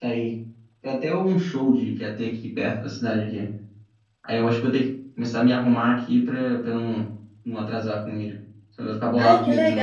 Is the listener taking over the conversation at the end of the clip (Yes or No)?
Yes